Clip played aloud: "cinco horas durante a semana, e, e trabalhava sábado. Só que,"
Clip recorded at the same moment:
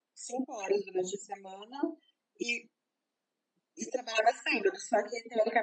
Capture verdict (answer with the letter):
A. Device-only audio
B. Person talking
A